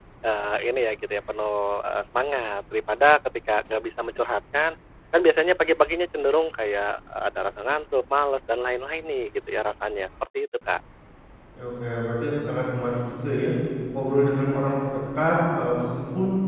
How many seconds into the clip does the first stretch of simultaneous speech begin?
none

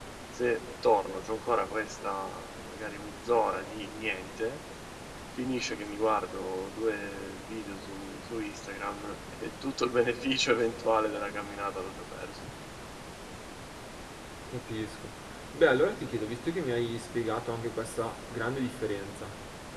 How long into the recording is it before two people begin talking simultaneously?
none

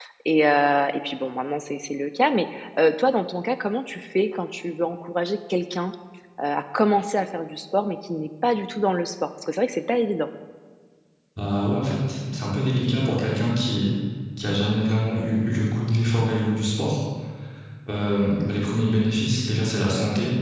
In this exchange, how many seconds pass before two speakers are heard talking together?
none

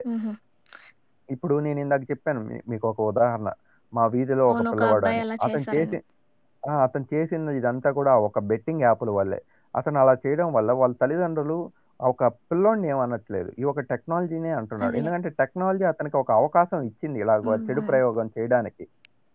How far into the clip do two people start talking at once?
4 s

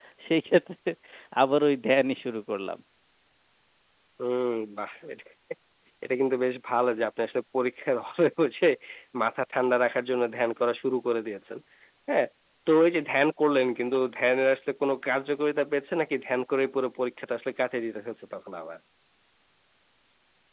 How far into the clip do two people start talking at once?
none

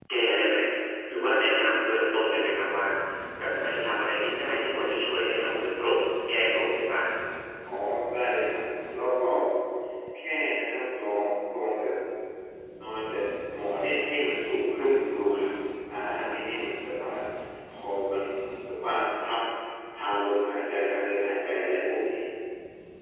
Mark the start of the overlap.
none

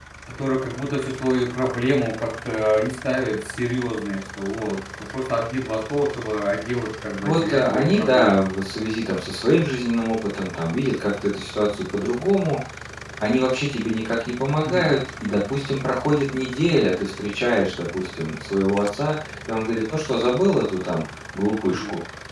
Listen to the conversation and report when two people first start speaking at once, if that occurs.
7 s

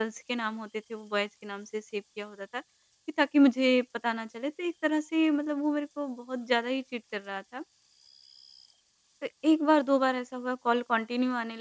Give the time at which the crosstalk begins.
none

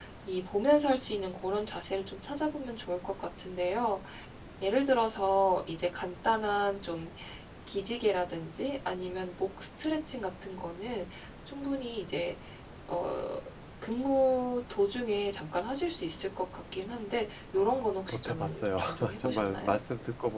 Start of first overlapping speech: 18 s

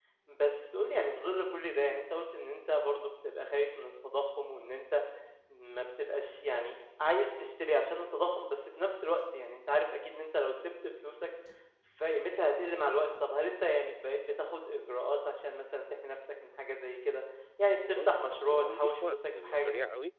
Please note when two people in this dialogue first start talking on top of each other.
18 s

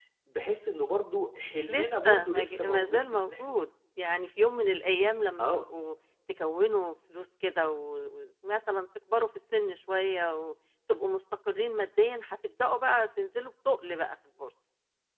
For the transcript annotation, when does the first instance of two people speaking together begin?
2 s

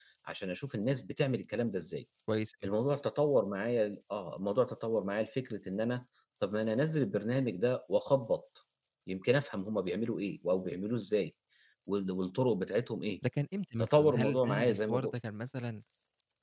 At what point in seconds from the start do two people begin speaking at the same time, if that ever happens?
14 s

